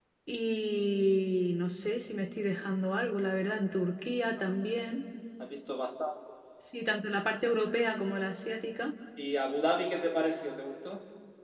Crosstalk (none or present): none